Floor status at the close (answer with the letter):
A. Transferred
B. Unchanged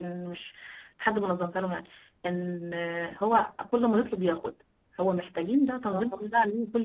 B